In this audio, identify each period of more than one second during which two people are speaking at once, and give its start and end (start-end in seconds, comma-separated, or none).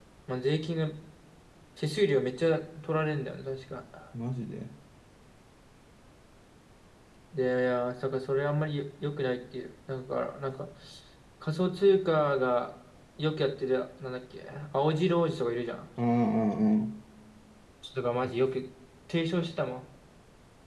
none